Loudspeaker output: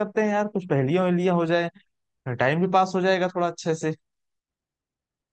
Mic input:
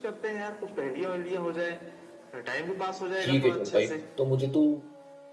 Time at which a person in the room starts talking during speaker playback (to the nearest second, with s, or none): 3 s